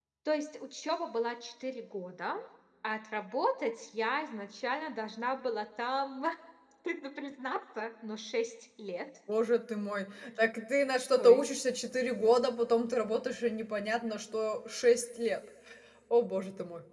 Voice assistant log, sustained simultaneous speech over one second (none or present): none